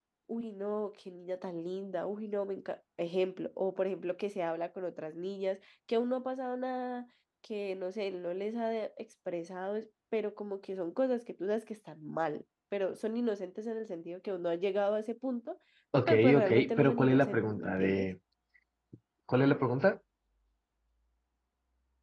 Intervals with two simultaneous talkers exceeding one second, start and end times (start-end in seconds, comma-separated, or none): 16.1-18.1